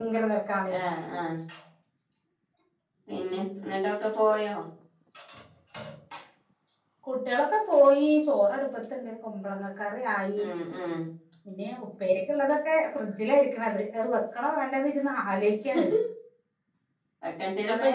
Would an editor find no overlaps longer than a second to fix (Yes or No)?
Yes